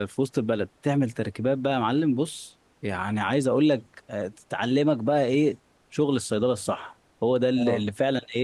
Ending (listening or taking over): listening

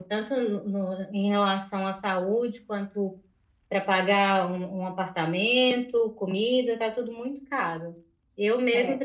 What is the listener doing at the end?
listening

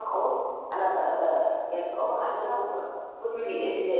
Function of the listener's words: listening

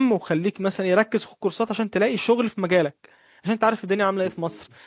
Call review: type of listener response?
listening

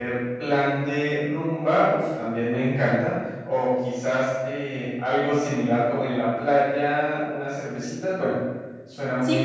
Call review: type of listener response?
taking over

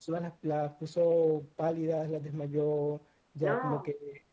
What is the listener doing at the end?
listening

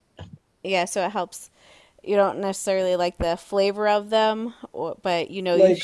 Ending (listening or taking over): taking over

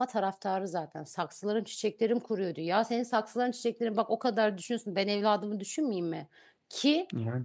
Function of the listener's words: listening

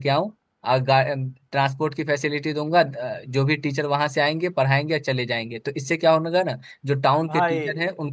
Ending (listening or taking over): listening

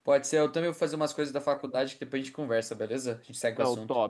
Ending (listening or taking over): taking over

